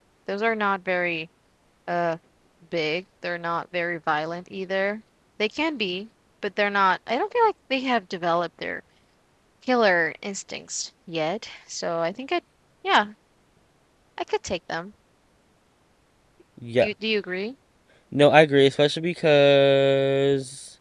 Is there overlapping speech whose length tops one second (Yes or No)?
No